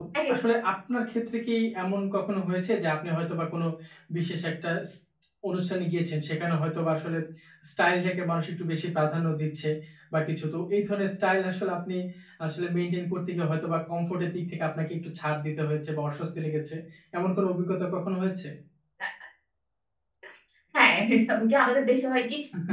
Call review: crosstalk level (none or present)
none